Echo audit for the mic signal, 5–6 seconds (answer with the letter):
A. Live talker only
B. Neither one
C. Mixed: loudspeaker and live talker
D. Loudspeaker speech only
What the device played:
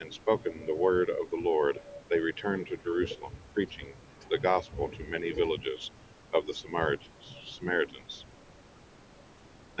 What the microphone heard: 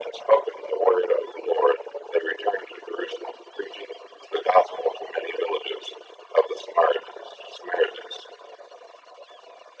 D